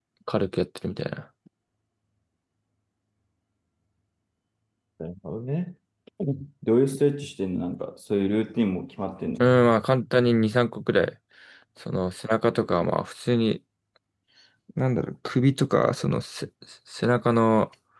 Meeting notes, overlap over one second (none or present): none